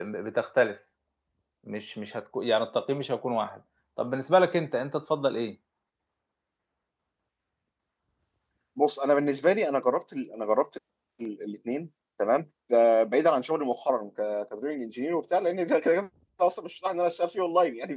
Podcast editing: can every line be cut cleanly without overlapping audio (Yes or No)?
Yes